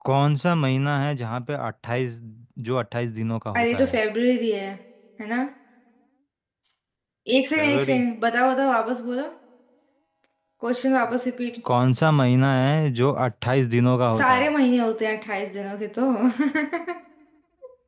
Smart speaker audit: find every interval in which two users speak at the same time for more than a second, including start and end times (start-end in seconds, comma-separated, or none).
none